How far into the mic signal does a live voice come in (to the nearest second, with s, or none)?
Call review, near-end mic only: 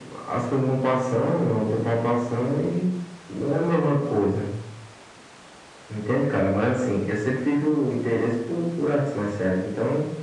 none